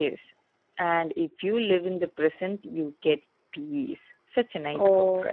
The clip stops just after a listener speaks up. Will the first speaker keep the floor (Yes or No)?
No